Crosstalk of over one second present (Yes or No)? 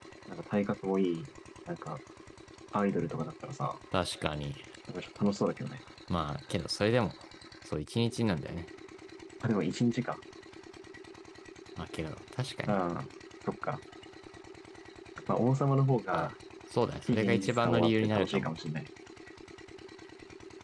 Yes